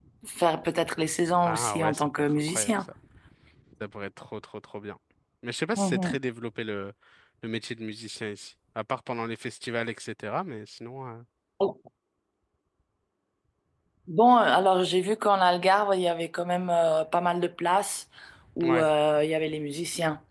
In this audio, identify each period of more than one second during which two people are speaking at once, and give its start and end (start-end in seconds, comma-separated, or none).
1.5-2.8